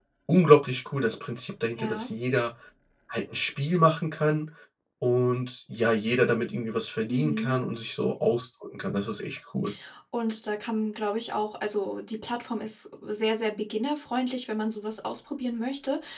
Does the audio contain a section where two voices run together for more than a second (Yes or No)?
No